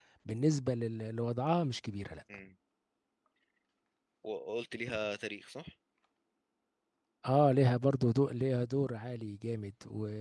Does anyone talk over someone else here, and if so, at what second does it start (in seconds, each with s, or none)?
none